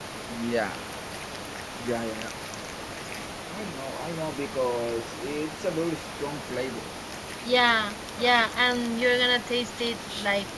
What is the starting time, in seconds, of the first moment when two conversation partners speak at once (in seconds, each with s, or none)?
none